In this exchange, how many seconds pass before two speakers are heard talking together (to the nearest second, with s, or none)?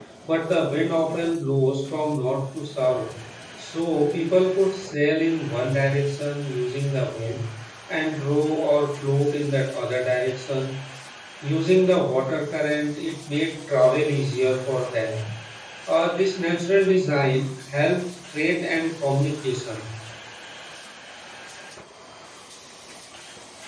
none